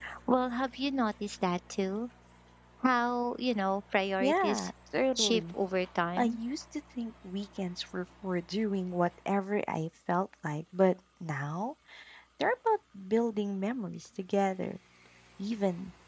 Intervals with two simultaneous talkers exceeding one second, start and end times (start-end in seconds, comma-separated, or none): none